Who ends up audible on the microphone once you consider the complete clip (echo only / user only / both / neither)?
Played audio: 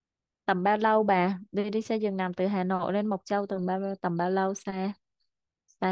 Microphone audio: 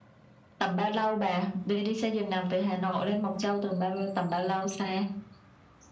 echo only